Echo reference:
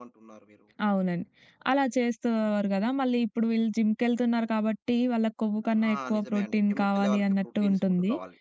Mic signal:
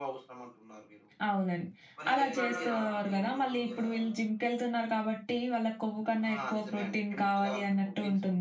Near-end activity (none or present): present